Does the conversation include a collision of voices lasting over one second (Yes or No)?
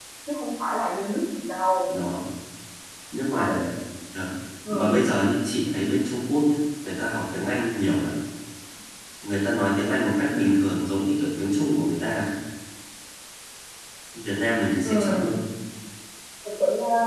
No